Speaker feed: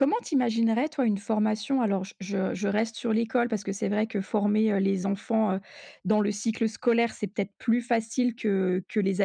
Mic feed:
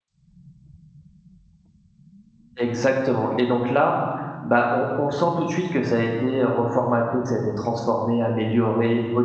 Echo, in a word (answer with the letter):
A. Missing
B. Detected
A